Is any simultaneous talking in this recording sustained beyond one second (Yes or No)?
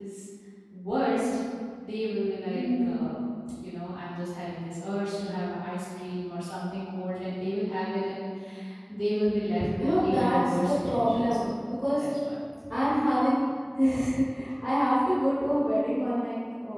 Yes